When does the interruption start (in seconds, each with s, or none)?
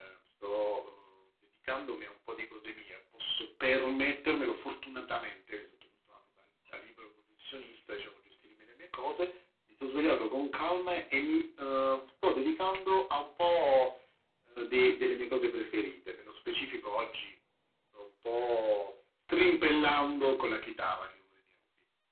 none